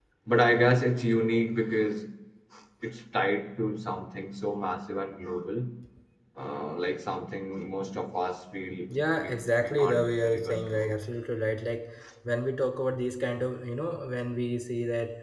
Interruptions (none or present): present